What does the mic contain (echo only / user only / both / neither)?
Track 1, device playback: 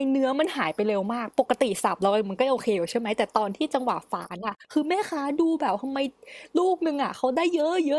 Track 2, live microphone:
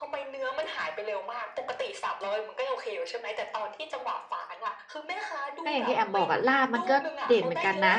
both